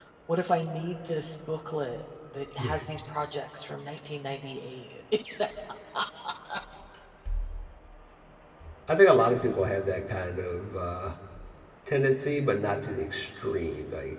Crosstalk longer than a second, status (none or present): none